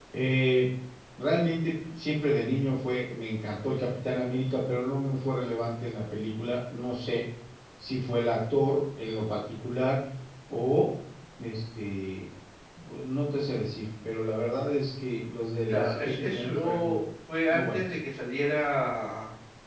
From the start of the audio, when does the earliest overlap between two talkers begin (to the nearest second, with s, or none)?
16 s